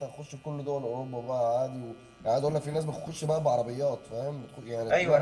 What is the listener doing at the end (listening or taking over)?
taking over